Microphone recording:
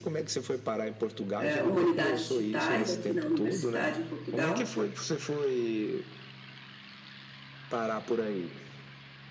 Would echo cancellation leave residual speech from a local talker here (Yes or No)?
Yes